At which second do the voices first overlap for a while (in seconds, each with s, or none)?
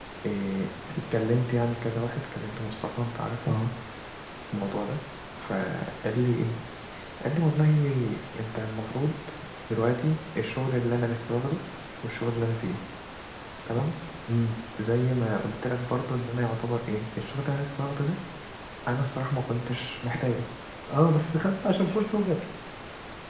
none